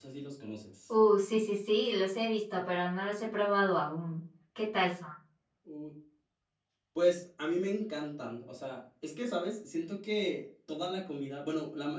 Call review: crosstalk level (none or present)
none